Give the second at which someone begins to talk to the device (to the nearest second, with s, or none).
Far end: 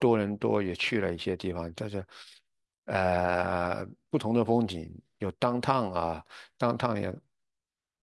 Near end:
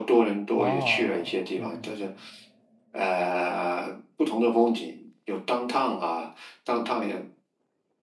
1 s